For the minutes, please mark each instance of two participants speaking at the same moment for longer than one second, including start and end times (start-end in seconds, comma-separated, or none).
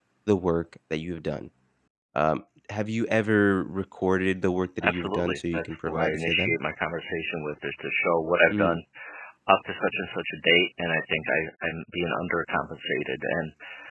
4.8-6.6